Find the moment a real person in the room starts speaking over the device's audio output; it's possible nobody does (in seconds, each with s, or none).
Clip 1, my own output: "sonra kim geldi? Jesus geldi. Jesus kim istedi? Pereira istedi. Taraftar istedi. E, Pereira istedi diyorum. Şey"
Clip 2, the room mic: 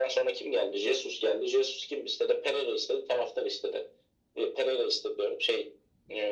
none